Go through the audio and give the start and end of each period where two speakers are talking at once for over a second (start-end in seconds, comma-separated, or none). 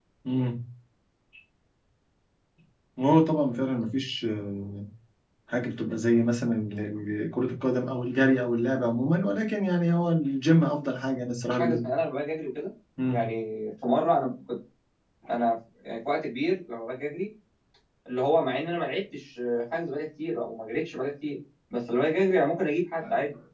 none